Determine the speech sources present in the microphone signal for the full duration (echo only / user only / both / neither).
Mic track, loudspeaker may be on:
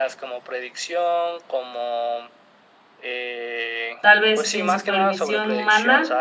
both